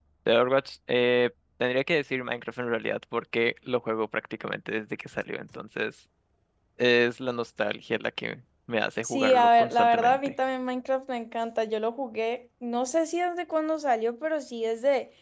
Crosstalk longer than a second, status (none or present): present